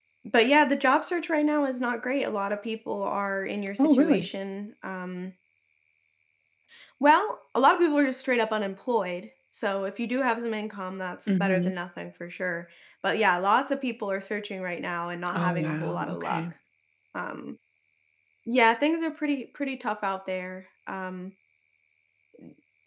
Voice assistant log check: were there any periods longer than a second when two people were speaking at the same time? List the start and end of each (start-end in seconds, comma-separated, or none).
15.3-16.5